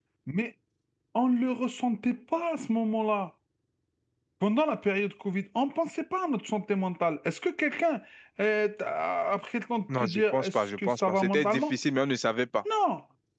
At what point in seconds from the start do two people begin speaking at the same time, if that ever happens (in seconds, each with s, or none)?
9.9 s